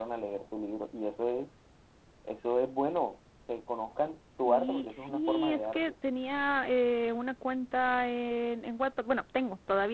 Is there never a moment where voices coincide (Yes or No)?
No